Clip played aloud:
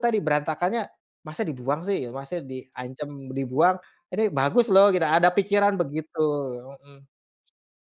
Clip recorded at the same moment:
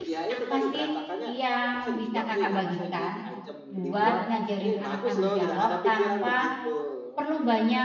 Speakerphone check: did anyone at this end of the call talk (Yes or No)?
Yes